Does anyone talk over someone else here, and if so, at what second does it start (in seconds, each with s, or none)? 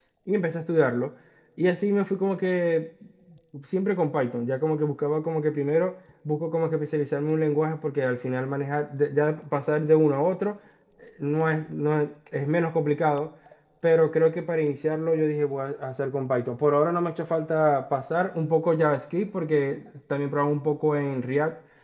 none